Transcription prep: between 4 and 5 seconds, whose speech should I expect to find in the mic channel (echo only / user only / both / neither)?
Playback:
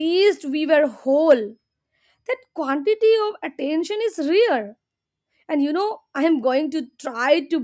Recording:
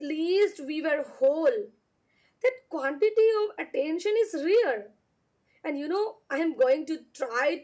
echo only